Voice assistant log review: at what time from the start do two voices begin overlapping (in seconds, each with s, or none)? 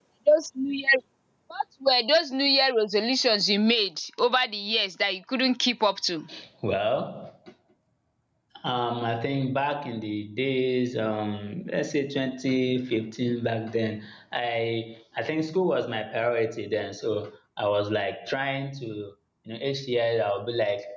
none